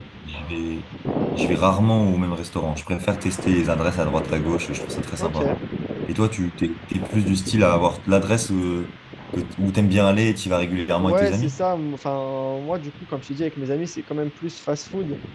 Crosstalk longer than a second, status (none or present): none